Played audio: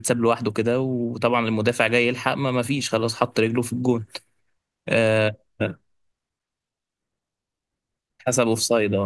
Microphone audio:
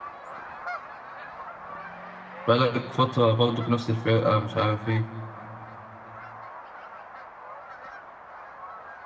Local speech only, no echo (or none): بقالك فترة برضو بنفس الفرقة مش عارف إيه